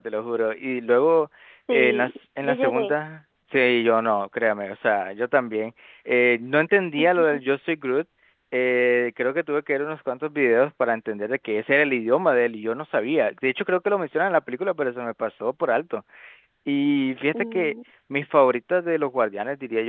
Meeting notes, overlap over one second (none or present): present